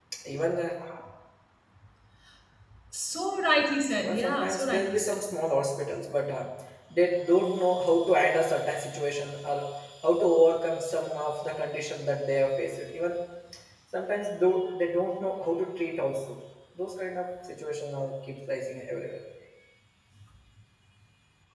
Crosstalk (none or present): present